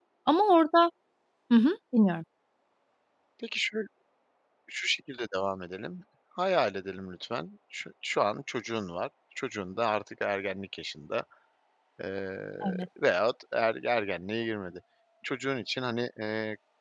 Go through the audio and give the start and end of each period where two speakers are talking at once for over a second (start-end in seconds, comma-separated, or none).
none